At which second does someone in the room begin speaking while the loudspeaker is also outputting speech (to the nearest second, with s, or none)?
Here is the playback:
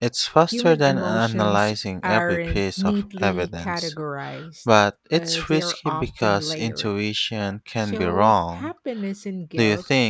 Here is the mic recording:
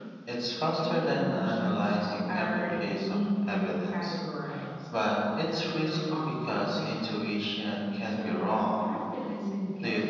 none